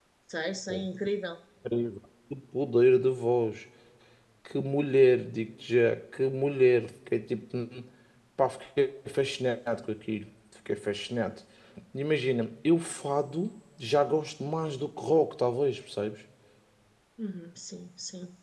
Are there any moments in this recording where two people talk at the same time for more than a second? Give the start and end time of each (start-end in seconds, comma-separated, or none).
none